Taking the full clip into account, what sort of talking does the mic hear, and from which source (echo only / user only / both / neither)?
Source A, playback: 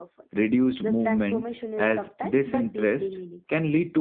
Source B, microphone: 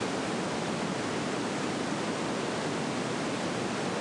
neither